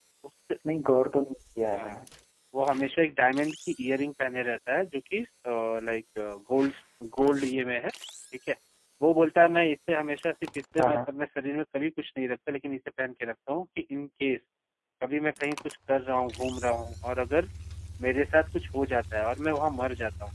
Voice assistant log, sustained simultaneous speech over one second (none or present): none